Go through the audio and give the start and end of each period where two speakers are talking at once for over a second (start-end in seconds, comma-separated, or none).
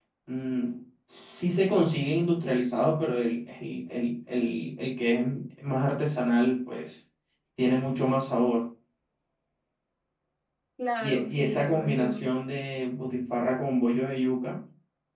11.0-12.2